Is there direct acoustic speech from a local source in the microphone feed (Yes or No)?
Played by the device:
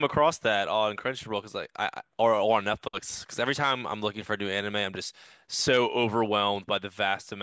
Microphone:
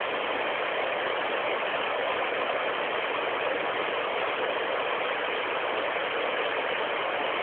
No